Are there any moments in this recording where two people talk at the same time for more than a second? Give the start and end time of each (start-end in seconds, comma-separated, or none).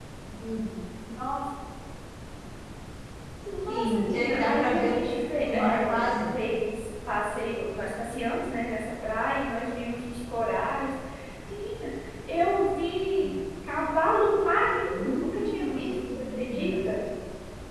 3.7-6.0, 14.9-16.8